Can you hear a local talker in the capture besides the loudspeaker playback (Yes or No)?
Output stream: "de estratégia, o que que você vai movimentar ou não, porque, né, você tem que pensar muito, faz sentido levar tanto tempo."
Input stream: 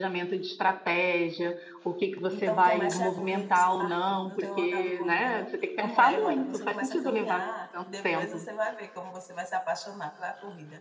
Yes